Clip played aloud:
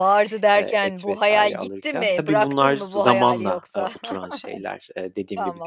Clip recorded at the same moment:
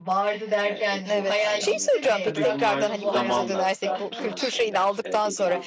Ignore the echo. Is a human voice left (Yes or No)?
Yes